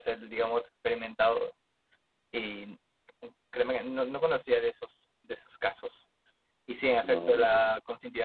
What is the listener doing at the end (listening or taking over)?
listening